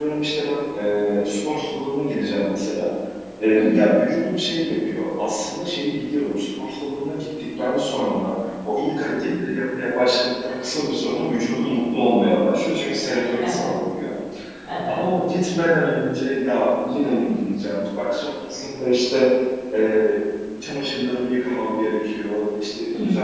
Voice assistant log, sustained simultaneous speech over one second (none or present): none